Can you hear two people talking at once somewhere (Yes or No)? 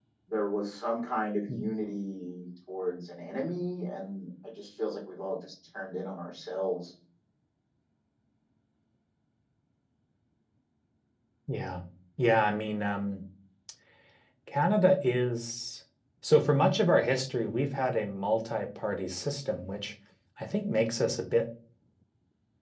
No